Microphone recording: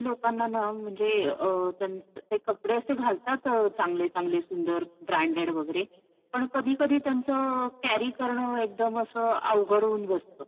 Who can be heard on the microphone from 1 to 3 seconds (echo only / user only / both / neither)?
echo only